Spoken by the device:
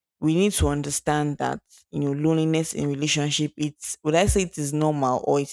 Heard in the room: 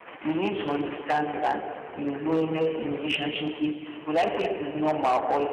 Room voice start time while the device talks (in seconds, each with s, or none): none